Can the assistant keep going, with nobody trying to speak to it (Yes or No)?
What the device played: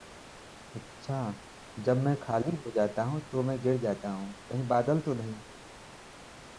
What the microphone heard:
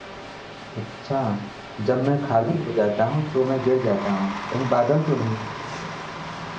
Yes